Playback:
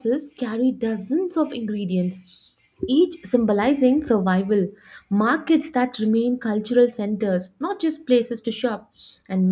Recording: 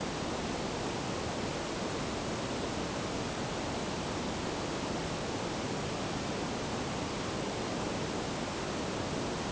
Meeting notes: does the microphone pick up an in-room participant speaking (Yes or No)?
No